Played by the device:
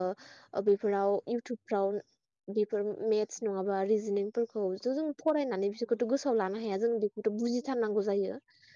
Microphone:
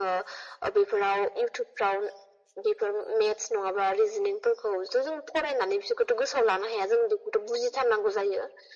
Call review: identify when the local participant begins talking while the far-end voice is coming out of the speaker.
none

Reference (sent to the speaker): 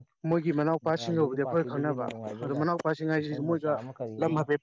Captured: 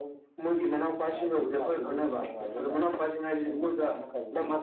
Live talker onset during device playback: none

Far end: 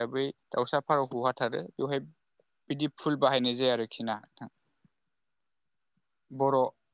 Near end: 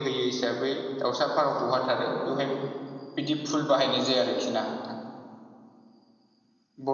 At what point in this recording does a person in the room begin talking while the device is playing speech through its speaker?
none

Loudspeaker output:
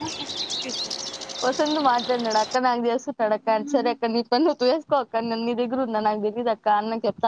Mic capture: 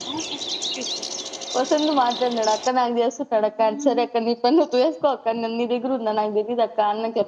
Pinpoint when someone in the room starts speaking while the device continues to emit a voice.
none

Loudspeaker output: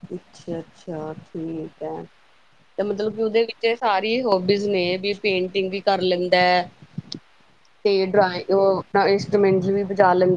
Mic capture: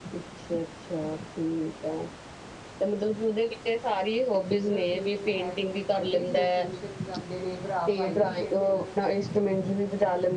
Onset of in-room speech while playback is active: 4.7 s

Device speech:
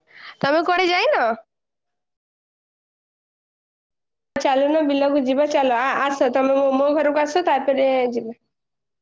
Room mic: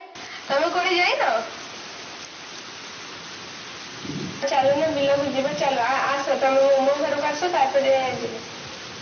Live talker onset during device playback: none

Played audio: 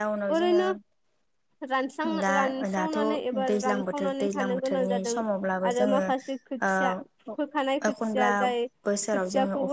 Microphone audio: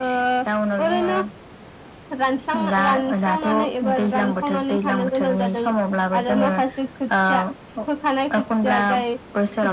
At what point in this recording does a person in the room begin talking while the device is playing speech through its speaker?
none

